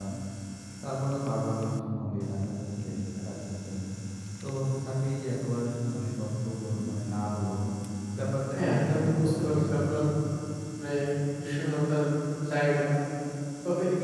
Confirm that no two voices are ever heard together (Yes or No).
No